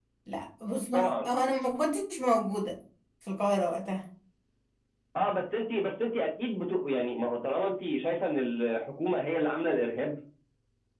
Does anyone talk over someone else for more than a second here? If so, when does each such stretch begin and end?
none

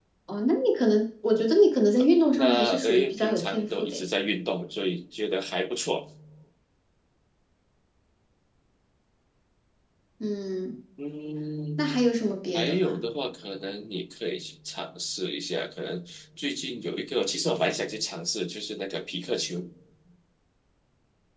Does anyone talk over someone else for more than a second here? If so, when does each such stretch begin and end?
2.4-4.0

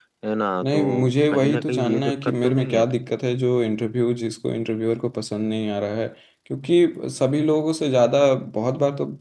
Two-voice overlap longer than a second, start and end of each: 1.3-2.8

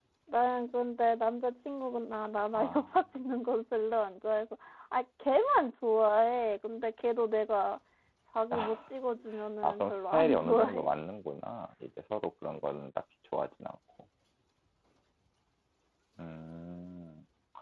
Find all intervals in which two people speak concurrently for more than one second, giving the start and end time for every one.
9.6-10.9

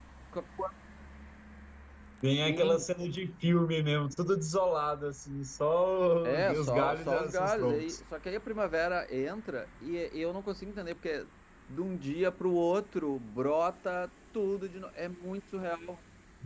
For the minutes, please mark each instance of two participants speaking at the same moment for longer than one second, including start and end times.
6.2-8.0

